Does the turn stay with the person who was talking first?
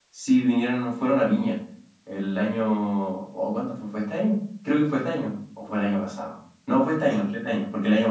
Yes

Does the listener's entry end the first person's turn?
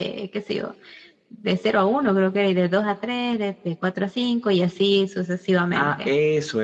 Yes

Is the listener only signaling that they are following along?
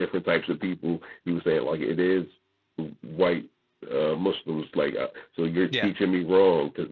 Yes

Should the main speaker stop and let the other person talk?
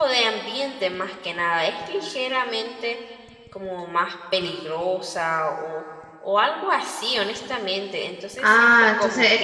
Yes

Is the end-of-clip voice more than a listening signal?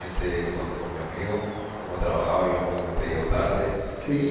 No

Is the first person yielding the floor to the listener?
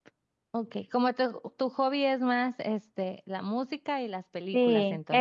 Yes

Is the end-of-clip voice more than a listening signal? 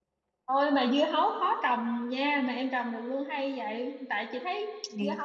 No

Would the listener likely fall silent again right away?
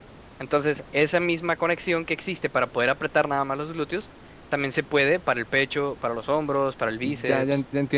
No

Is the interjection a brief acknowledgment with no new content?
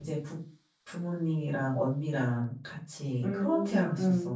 No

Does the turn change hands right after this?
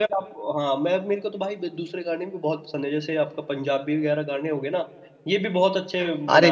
Yes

